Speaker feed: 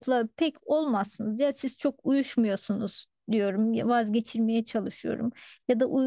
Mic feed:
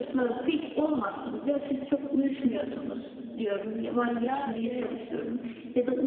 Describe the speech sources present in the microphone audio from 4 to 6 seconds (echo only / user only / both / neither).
both